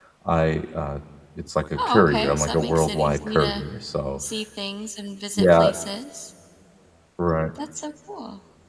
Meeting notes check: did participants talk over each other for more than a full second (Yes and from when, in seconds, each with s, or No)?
Yes, from 1.8 s